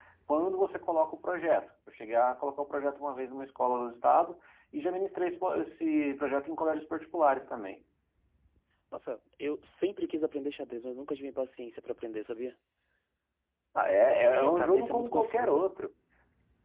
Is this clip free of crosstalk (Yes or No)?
No